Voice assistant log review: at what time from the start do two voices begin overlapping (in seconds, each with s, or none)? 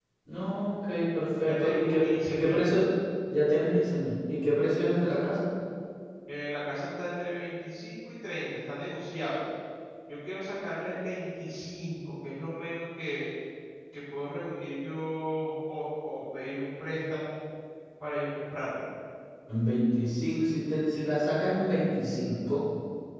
1.4 s